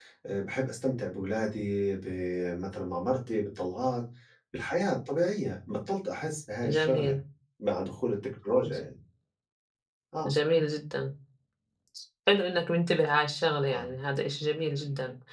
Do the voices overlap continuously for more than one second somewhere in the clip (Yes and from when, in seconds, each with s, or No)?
No